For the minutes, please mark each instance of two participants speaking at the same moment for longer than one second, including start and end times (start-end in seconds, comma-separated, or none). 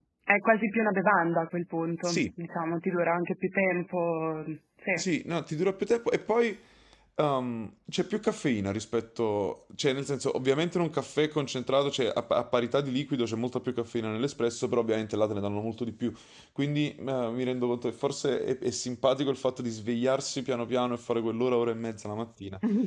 none